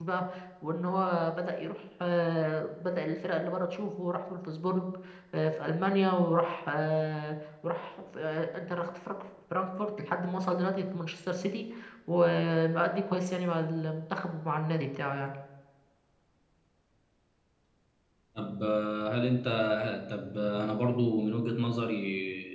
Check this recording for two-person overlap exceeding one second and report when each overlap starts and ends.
none

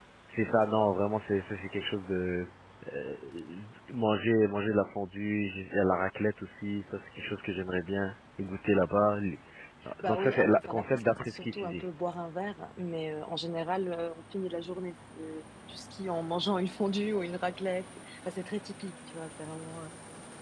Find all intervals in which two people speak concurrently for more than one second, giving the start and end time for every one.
10.1-11.8

